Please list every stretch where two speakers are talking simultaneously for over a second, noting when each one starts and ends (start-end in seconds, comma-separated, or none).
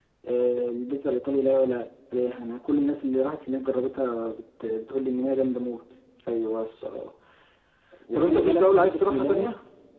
8.1-9.5